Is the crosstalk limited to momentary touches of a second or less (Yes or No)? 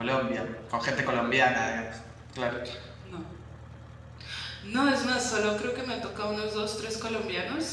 Yes